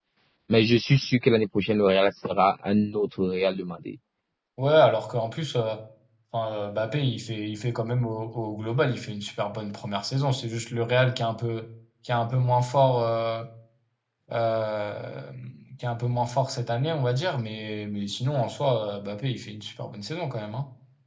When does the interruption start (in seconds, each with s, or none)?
none